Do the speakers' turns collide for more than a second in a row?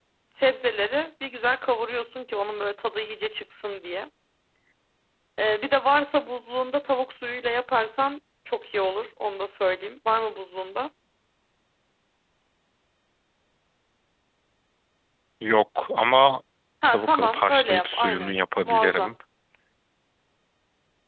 Yes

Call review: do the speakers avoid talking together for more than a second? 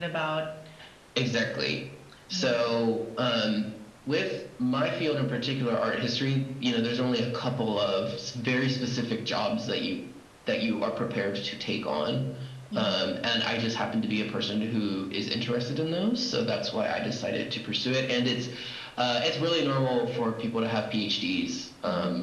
Yes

